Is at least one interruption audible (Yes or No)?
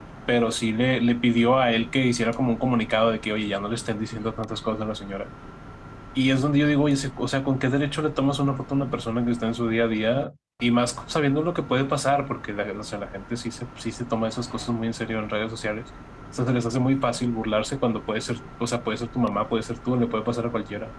No